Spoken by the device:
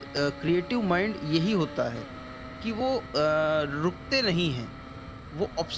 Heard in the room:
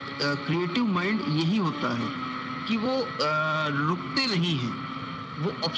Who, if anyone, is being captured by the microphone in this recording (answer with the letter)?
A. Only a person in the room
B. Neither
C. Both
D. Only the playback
D